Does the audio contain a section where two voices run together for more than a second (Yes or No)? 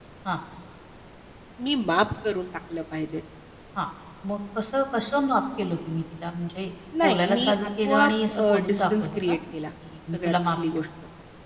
Yes